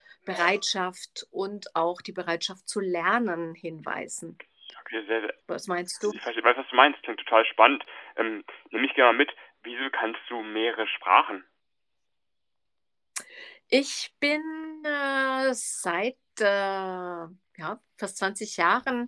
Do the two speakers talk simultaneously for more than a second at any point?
No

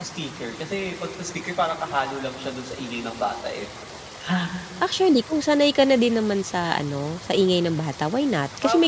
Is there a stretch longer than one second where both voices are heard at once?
No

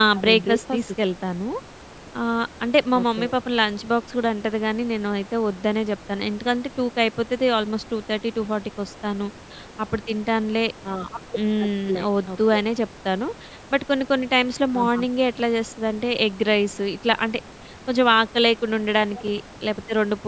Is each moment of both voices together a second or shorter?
No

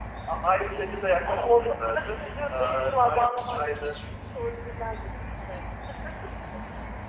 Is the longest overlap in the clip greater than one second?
Yes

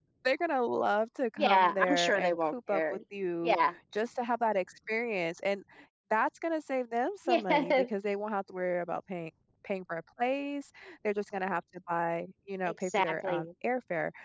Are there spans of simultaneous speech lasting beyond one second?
Yes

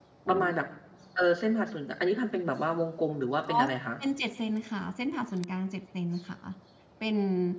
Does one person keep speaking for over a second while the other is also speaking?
No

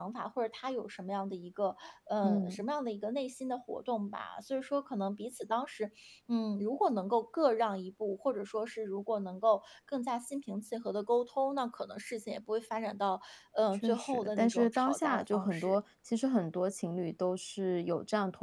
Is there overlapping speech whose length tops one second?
Yes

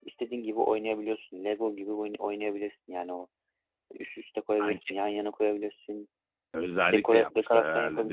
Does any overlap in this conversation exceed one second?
Yes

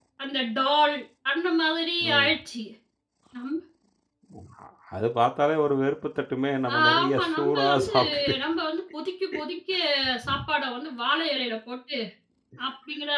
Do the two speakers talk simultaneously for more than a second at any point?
Yes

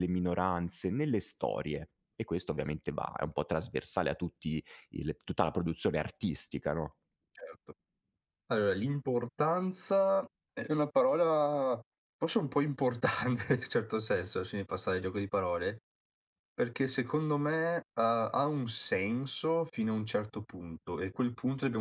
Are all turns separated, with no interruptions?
Yes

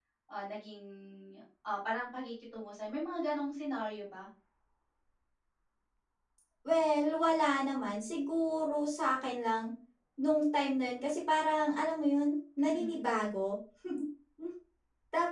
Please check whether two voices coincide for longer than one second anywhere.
No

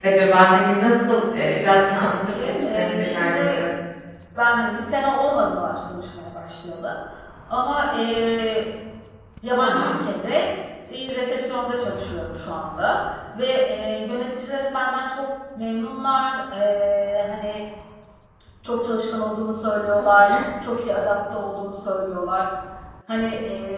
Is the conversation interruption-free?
No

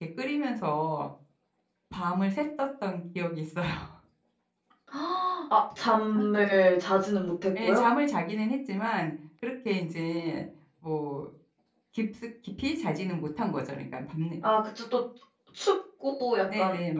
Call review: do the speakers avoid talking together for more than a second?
Yes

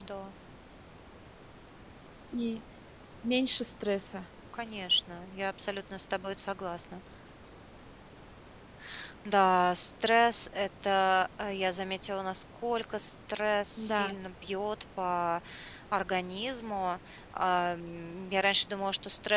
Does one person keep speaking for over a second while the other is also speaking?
No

